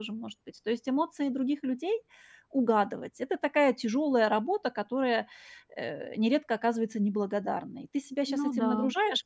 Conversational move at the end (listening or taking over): listening